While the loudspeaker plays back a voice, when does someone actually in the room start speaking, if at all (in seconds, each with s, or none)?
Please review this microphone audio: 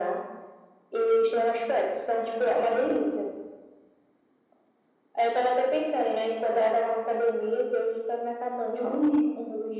none